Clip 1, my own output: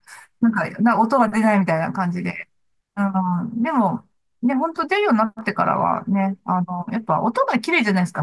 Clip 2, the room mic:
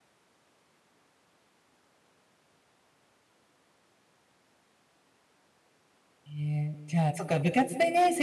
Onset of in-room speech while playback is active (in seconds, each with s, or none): 6.3 s